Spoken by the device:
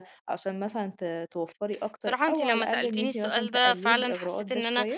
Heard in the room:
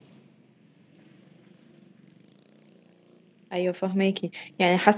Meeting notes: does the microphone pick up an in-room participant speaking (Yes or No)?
Yes